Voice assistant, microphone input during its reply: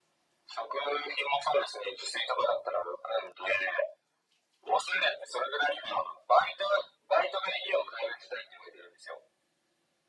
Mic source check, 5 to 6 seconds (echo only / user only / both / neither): echo only